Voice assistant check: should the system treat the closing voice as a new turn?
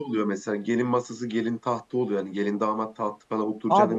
Yes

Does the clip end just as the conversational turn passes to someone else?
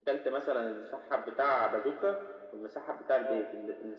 No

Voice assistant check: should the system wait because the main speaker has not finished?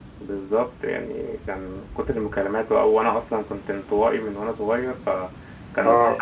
Yes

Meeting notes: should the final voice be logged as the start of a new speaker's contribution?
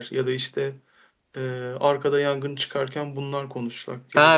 Yes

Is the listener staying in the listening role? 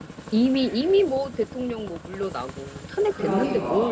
No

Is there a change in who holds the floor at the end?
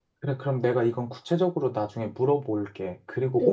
Yes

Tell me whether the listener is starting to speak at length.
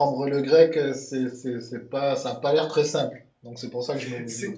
Yes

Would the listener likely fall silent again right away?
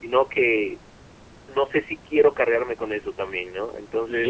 No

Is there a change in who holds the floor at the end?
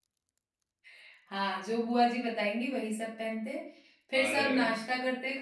No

